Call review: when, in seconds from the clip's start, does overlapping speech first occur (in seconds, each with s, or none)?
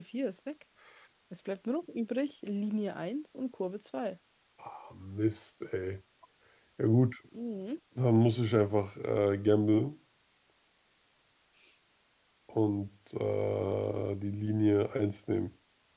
none